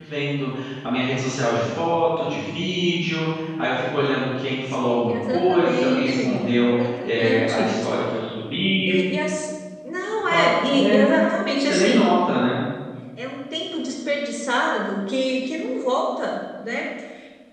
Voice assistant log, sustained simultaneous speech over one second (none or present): present